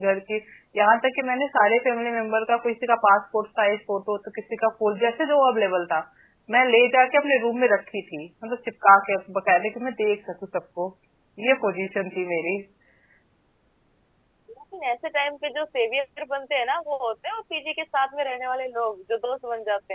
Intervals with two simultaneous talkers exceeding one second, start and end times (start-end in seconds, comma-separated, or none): none